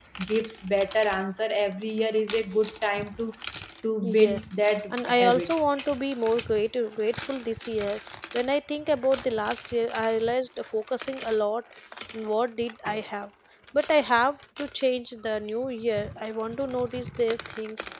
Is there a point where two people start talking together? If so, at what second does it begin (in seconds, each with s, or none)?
4.0 s